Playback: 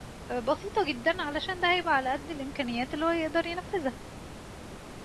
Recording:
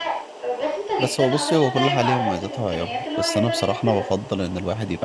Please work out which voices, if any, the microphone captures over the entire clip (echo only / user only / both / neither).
both